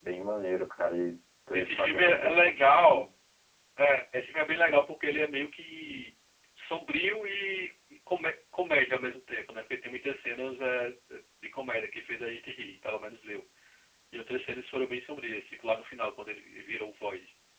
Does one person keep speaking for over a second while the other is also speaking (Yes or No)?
Yes